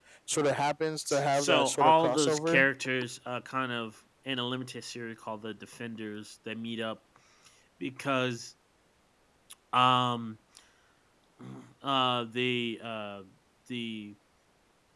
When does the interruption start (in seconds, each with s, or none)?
1.1 s